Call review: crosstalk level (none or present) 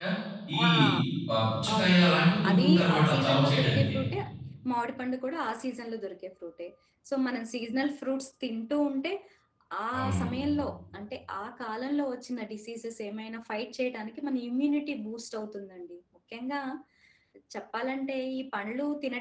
present